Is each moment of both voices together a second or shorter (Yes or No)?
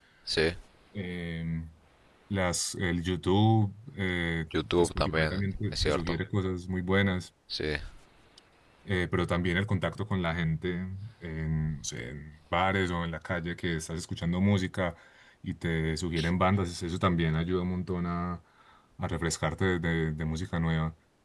No